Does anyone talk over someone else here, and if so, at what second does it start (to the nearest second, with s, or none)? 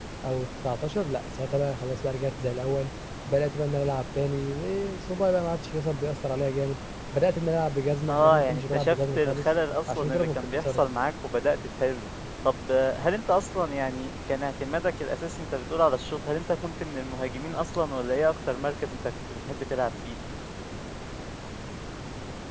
8 s